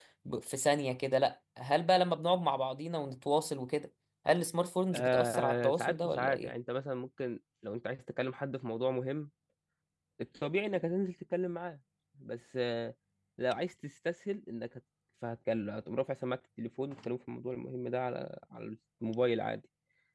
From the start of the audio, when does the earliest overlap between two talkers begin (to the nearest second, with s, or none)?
5 s